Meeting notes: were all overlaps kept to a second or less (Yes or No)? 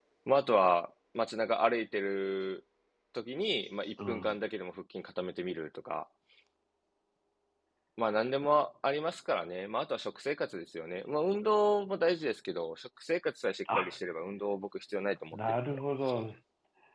Yes